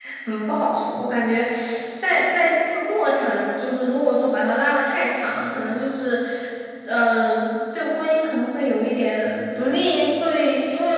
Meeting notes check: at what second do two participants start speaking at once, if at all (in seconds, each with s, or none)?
none